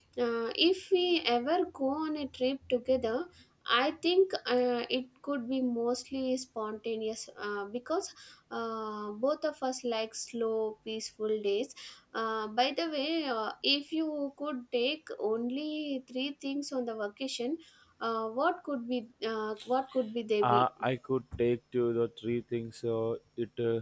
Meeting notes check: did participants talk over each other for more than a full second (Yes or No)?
No